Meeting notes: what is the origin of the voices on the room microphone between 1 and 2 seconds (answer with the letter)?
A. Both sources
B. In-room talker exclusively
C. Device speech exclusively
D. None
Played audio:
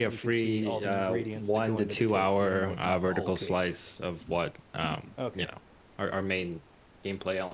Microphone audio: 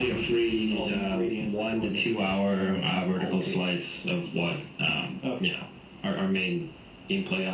C